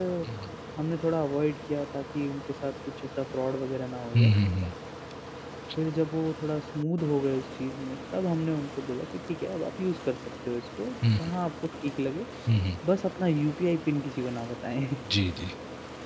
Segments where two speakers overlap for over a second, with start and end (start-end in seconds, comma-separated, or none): none